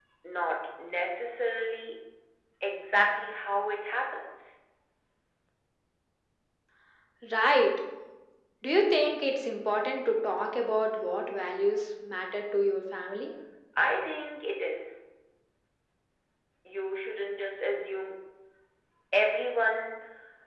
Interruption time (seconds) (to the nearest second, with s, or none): none